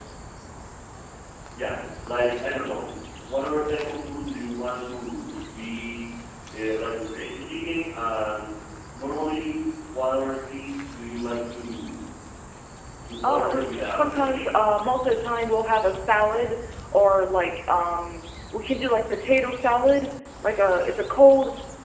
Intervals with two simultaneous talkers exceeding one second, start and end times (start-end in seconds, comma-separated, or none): 13.3-14.6